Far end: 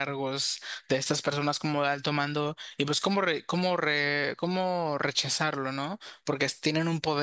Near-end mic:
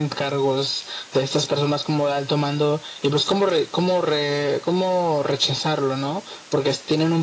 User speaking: No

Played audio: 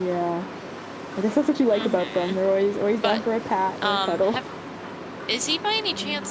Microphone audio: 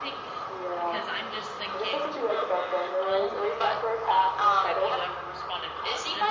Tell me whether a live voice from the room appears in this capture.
Yes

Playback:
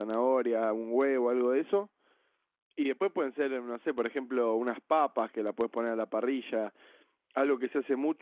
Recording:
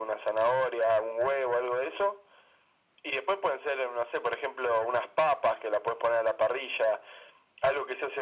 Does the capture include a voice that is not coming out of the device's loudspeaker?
No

